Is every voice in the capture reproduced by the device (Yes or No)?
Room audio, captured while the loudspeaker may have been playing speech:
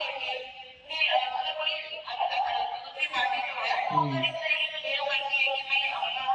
No